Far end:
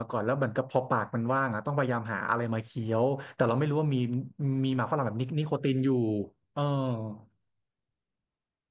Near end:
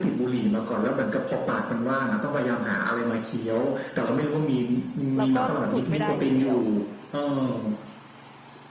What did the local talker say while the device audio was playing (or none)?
เราก็สูบไม่ได้อยู่แล้ว